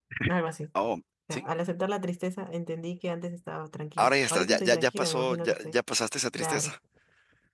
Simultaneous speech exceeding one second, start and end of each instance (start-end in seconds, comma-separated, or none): 4.0-5.8